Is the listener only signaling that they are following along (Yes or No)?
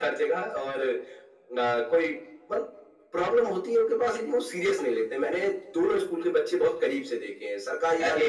Yes